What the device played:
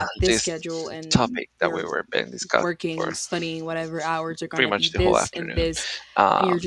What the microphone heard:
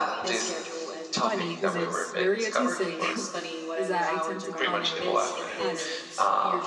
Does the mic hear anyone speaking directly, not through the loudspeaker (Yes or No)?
Yes